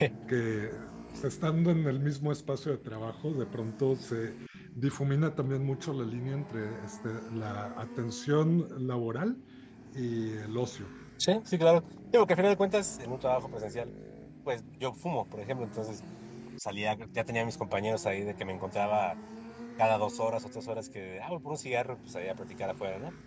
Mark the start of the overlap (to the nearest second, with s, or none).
none